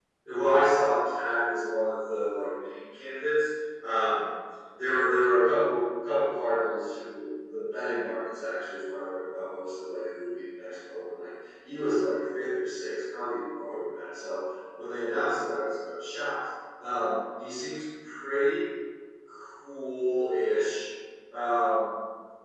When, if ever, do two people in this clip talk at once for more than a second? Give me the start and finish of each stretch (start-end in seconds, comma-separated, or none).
none